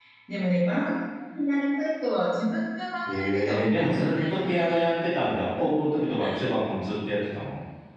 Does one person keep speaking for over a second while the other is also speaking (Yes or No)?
Yes